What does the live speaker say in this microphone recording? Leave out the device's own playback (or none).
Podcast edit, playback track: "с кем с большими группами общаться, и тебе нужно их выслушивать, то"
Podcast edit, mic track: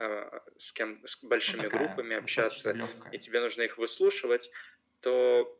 ну, такая, достаточно легкая.